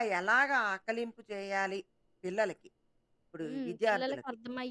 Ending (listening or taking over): taking over